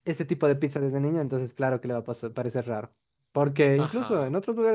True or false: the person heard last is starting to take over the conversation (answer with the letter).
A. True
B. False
B